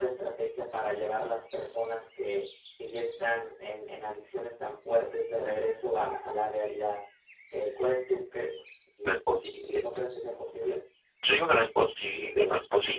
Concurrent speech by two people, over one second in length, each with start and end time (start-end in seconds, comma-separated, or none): none